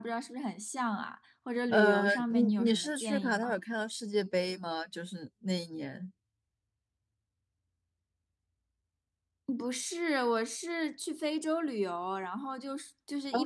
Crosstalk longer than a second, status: present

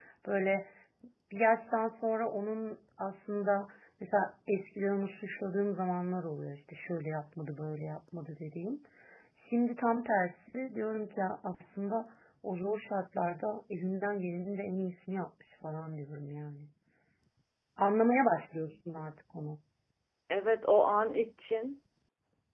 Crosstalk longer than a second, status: none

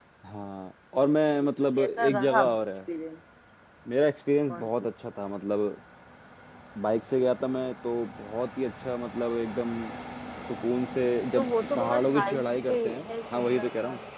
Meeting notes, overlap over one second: present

